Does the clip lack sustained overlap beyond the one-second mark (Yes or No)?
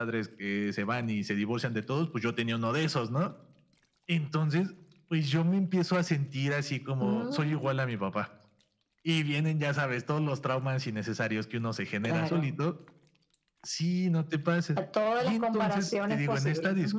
No